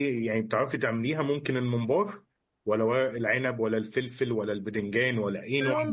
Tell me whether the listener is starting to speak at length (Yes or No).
Yes